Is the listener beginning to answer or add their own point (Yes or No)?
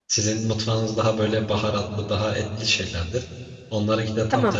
No